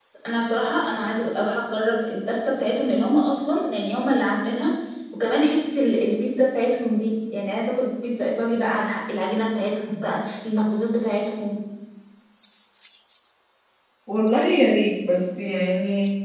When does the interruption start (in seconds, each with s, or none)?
none